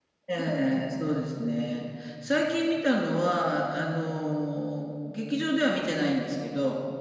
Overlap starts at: none

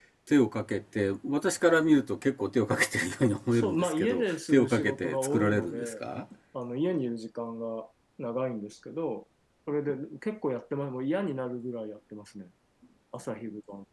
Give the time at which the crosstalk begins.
4 s

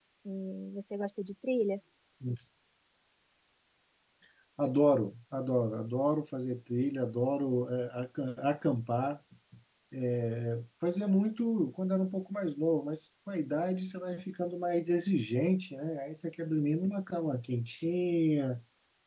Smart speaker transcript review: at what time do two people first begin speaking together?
none

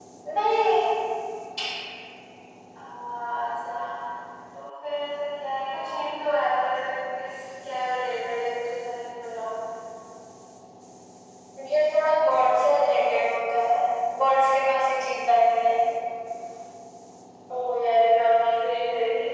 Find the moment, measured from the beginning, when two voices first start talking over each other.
none

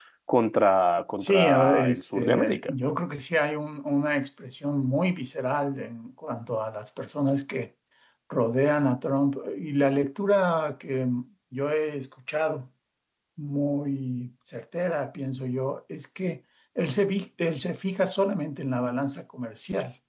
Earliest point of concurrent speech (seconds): 1 s

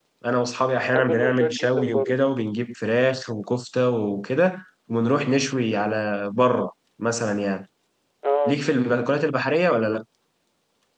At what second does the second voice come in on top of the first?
1 s

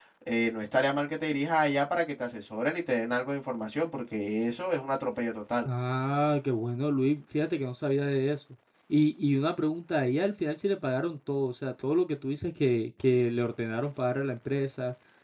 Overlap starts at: none

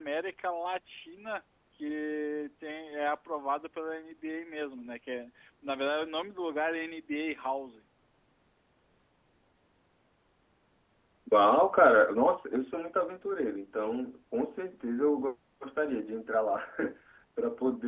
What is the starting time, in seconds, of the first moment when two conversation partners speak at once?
none

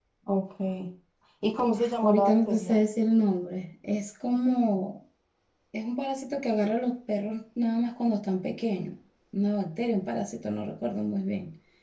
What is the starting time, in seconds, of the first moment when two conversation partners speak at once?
2 s

